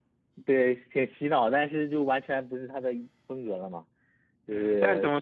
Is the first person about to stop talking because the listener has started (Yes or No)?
Yes